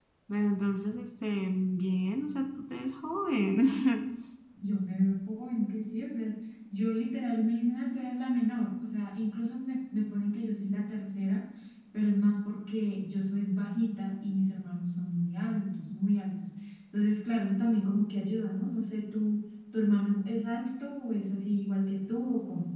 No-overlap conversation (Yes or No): Yes